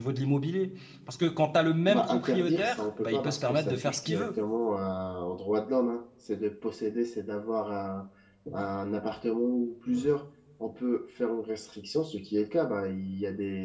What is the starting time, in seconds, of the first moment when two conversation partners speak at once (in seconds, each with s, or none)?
1.9 s